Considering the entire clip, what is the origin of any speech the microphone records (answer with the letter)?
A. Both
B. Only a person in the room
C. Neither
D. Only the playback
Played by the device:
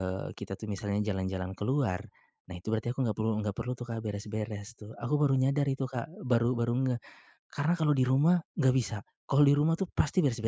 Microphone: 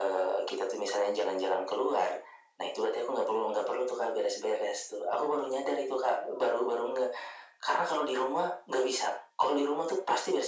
D